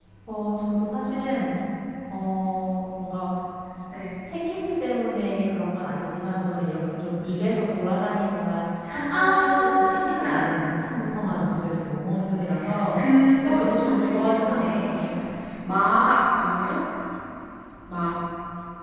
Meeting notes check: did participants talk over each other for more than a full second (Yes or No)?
Yes